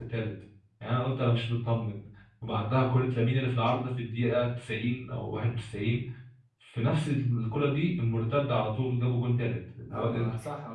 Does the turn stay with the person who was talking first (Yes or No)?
No